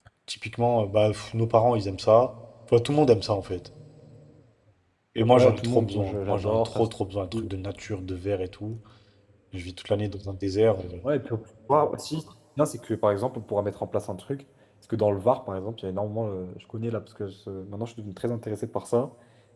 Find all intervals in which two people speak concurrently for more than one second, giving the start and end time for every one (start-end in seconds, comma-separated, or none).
5.4-6.8